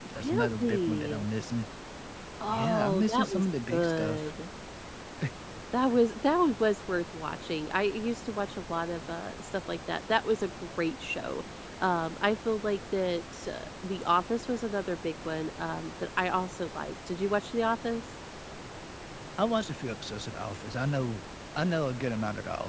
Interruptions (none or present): present